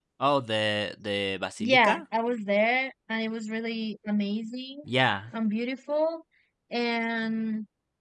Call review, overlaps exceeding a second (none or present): none